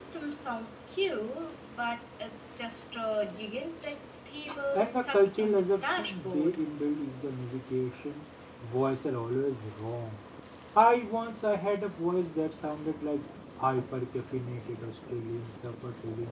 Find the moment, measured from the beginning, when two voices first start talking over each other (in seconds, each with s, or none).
4.7 s